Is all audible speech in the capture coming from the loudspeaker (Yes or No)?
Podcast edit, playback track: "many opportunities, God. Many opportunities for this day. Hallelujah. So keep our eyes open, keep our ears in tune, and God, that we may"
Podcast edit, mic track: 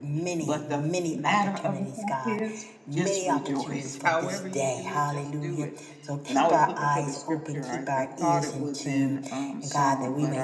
No